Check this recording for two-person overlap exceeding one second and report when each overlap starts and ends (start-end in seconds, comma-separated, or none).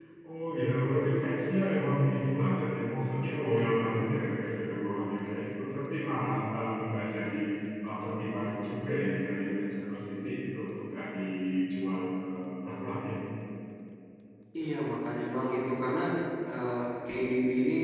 none